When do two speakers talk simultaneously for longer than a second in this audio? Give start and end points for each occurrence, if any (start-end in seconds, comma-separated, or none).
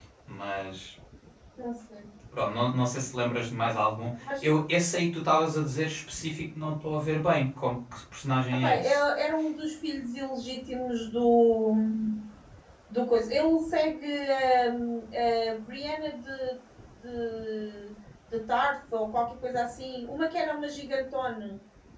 none